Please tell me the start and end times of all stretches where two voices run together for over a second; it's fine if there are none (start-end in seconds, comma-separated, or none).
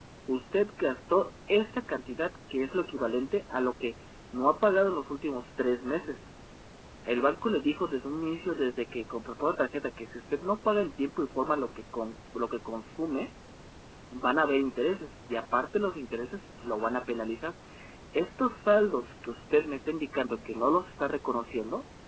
none